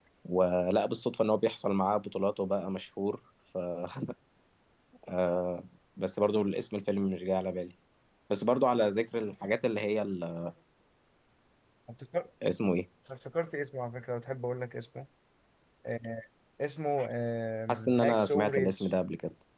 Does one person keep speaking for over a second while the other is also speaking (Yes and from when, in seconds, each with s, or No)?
Yes, from 17.7 s